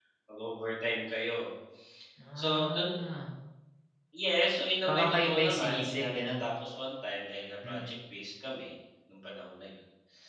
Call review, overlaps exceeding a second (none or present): present